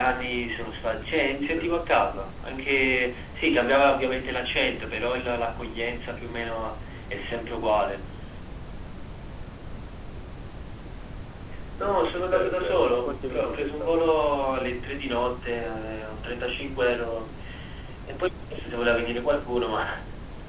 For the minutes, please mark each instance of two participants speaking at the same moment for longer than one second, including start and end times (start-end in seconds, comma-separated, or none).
12.2-14.0